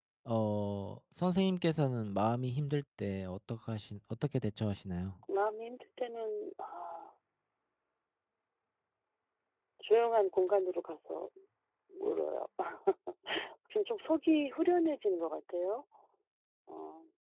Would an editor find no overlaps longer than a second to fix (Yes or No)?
Yes